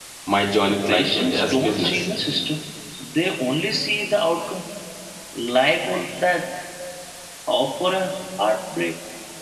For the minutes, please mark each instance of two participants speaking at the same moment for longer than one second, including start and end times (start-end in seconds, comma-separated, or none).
0.7-2.0